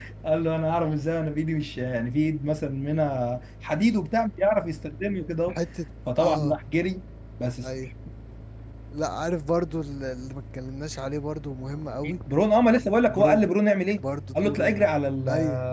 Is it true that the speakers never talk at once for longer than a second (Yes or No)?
Yes